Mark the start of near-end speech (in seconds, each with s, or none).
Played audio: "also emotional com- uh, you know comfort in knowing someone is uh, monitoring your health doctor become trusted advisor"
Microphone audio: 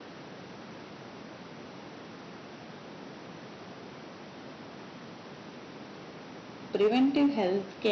6.7 s